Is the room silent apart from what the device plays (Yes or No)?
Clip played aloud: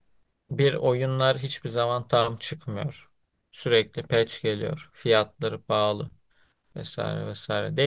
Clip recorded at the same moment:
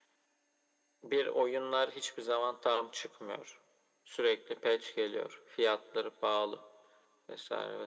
Yes